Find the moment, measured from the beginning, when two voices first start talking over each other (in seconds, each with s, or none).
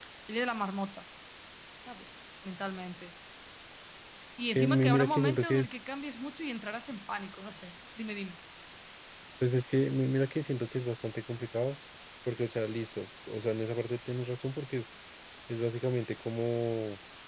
4.5 s